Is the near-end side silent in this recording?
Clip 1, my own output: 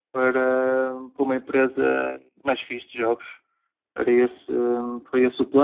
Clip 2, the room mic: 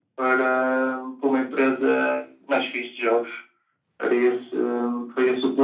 Yes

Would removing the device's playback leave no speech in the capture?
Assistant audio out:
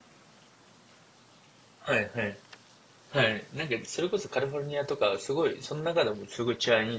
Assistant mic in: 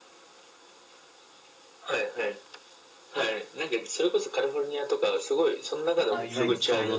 No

